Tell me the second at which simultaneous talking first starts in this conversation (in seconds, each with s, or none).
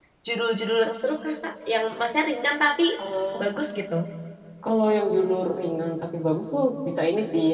none